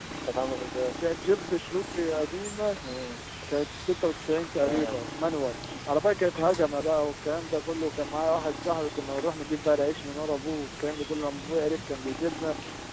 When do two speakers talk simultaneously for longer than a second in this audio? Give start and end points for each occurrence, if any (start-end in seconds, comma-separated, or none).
none